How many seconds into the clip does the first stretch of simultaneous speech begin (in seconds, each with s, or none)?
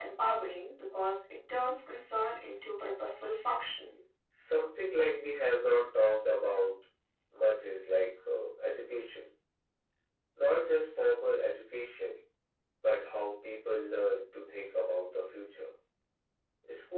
none